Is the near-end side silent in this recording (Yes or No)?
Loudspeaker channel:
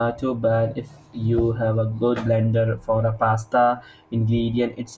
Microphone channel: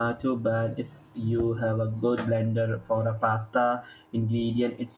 Yes